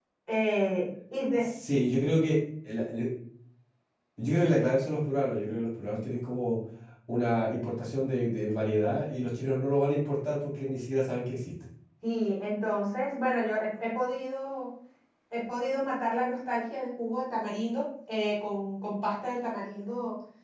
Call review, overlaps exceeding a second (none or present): none